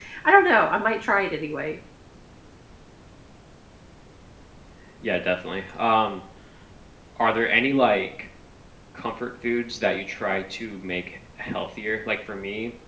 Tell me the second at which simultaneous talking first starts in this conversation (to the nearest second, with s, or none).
none